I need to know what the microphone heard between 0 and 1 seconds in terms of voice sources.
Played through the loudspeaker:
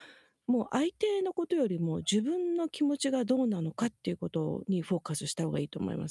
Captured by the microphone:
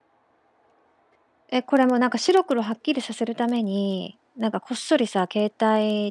neither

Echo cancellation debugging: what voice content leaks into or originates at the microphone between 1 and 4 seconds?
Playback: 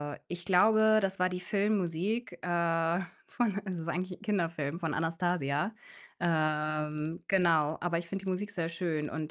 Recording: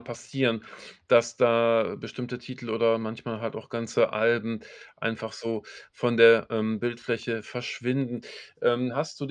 user only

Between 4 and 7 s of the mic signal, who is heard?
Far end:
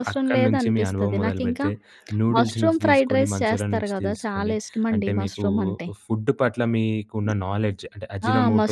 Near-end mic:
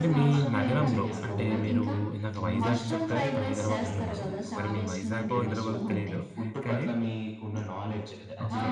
both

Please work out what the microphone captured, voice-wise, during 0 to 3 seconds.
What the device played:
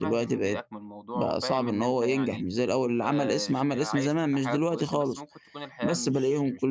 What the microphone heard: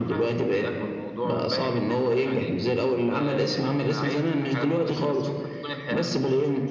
echo only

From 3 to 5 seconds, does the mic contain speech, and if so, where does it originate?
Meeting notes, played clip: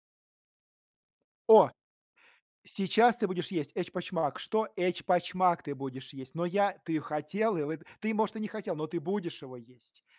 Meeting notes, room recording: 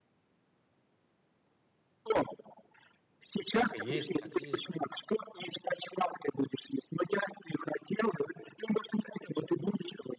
both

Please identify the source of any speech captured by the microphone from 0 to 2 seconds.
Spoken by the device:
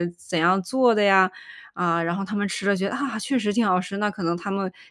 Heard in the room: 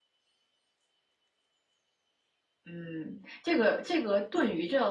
neither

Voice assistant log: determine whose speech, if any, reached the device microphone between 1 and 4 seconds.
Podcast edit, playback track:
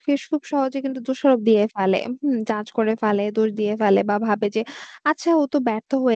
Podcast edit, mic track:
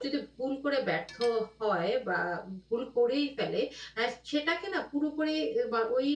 user only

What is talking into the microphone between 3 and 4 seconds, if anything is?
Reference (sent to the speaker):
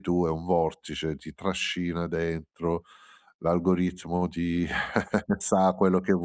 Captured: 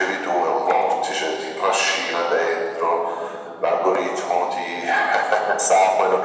echo only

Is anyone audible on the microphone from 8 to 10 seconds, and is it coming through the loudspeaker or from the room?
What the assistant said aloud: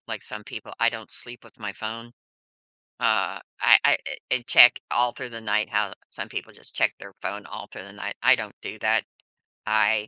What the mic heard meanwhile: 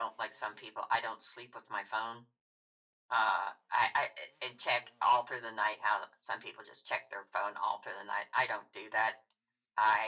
echo only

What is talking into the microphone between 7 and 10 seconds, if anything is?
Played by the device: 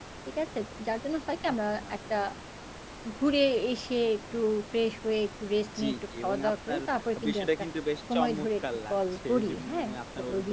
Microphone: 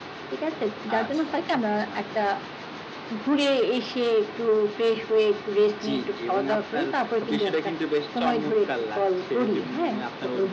echo only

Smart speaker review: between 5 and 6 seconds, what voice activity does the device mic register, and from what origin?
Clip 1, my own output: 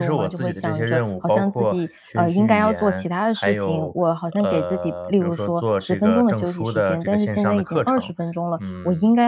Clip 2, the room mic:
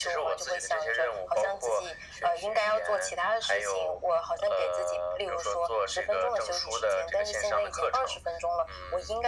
echo only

